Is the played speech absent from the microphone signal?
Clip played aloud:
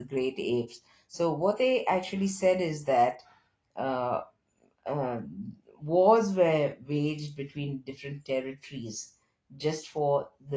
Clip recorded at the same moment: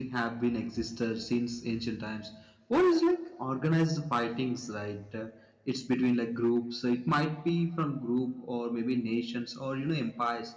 Yes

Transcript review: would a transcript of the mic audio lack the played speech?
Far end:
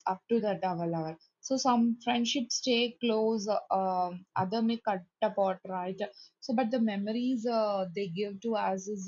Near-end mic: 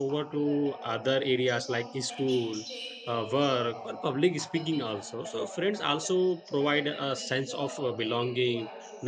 No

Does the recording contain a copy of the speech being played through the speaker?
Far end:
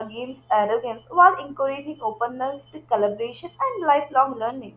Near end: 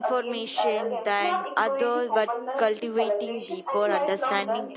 Yes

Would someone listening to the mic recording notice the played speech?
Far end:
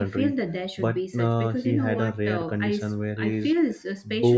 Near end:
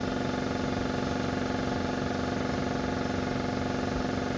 No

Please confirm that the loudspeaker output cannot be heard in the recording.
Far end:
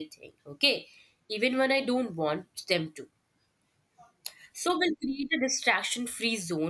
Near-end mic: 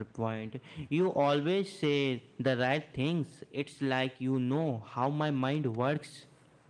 Yes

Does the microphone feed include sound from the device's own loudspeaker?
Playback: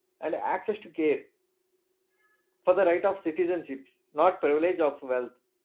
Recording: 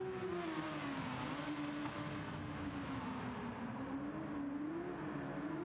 No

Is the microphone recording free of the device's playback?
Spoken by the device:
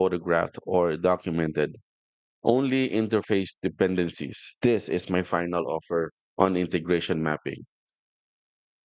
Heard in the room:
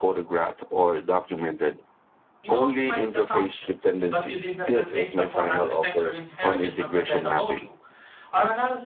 No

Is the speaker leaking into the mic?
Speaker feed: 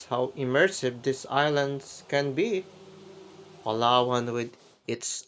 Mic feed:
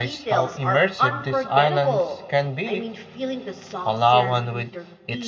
Yes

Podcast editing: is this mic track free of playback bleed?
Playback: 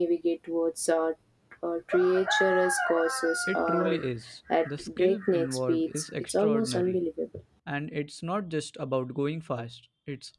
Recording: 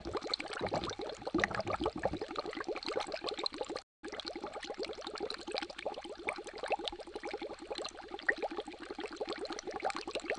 Yes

